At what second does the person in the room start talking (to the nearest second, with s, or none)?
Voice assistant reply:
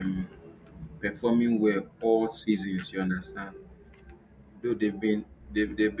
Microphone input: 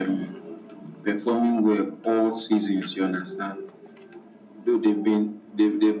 none